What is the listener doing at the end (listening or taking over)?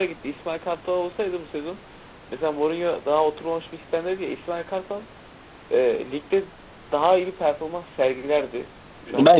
taking over